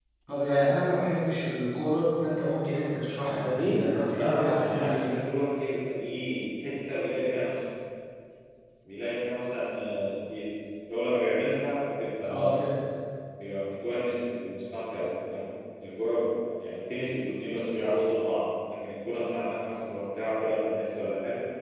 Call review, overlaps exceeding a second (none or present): present